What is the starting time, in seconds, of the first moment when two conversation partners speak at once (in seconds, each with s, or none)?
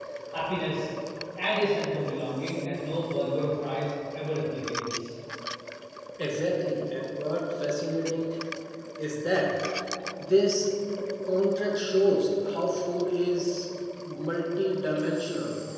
none